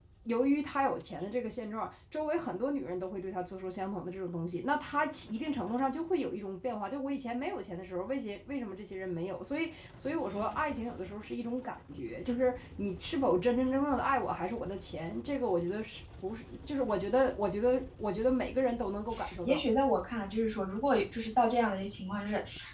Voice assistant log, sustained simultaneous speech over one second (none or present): none